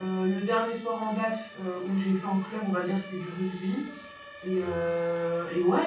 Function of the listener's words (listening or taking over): listening